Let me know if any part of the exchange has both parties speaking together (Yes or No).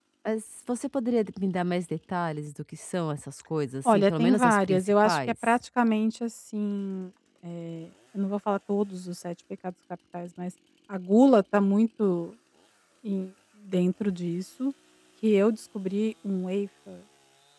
Yes